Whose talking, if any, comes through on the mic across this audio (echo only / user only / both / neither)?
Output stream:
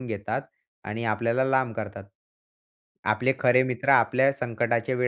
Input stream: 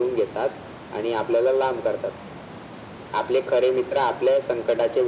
echo only